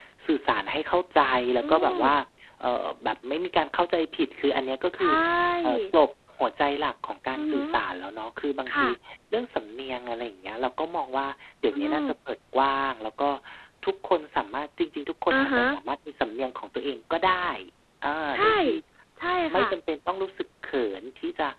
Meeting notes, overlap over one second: none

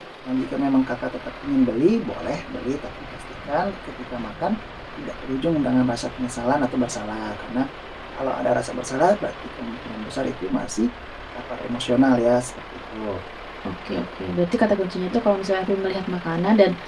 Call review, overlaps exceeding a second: none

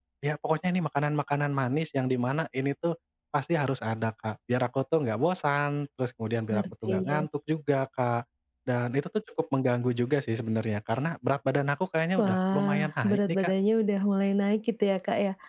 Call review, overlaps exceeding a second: present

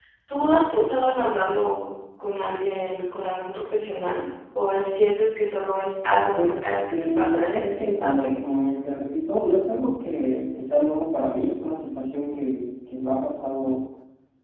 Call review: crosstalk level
present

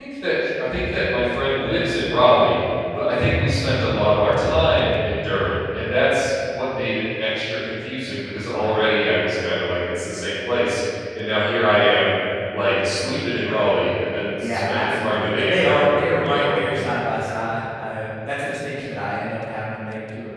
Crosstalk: present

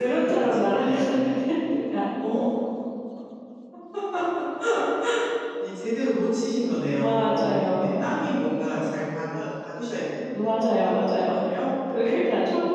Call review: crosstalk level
present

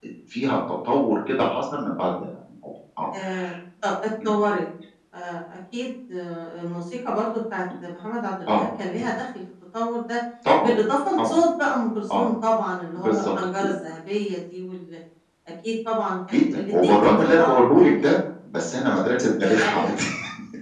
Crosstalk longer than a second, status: present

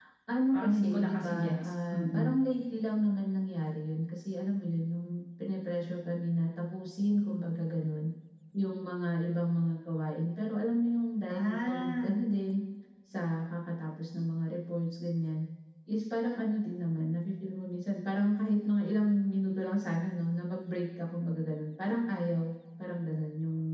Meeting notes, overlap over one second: present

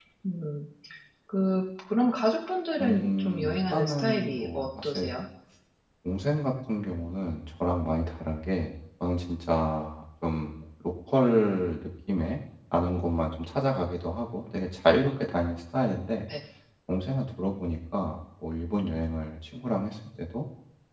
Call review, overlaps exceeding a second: present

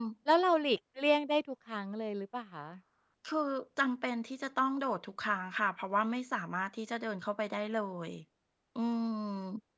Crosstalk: none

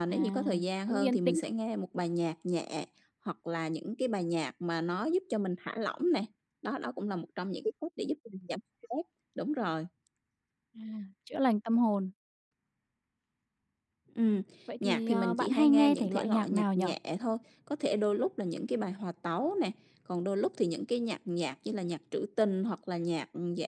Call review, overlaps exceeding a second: present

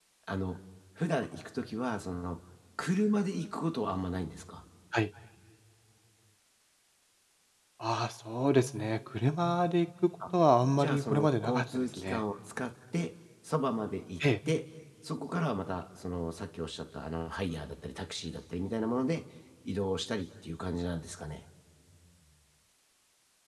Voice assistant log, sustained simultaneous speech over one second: present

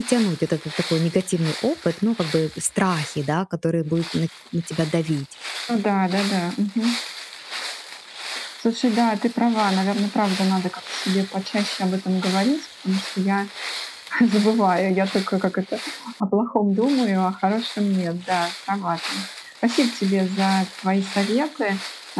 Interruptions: none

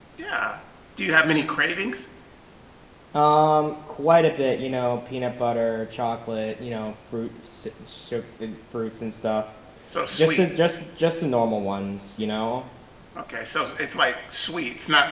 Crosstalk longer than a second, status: none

